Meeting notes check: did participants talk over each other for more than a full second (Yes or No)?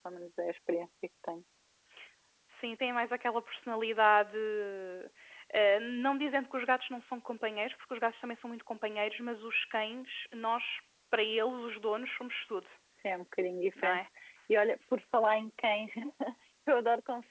No